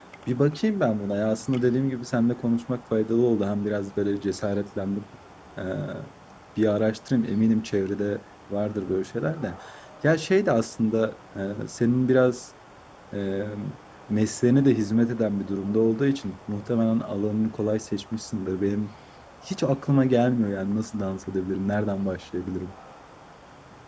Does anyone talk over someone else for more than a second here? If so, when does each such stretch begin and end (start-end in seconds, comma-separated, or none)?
none